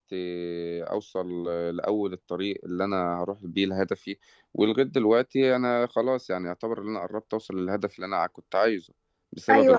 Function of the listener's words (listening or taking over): listening